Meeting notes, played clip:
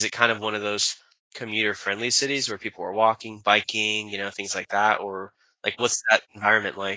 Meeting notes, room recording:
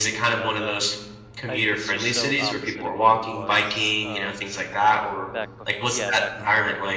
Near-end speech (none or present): present